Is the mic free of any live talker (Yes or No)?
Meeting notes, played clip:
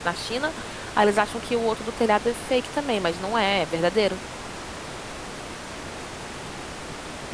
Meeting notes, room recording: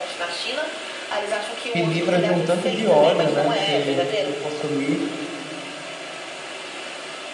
No